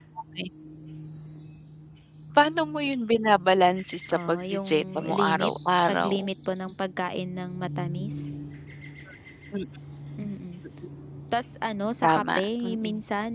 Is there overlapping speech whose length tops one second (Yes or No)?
Yes